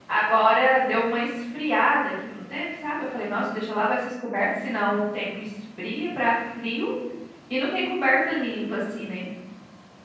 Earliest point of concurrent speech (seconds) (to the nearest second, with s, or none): none